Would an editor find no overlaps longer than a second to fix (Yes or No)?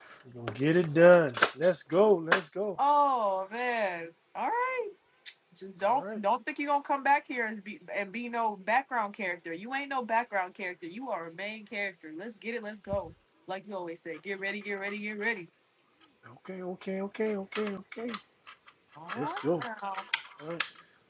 Yes